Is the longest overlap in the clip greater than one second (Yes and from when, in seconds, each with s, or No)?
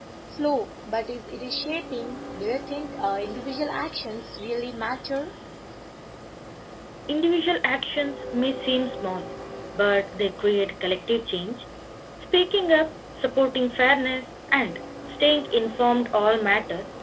No